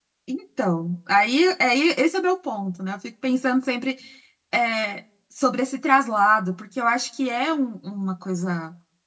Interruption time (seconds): none

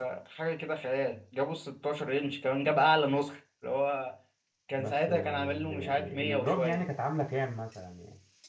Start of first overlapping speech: 4.8 s

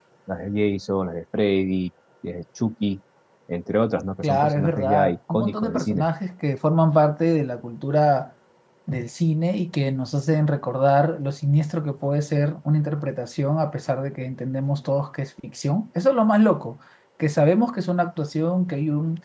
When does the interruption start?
4.2 s

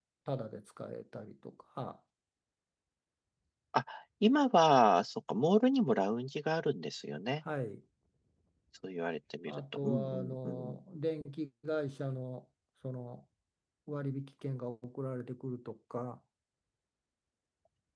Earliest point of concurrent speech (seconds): 9.4 s

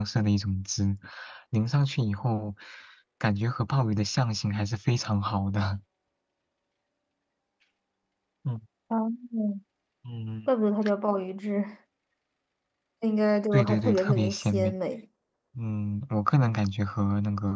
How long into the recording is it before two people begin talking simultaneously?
13.5 s

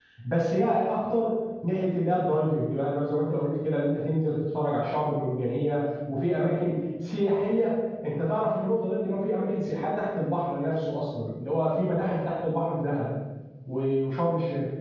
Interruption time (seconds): none

